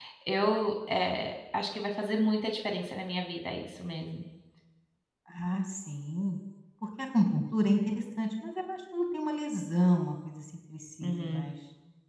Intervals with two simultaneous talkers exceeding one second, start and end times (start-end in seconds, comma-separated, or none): none